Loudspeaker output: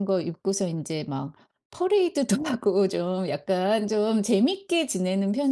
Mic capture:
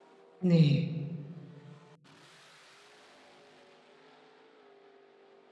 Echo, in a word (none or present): none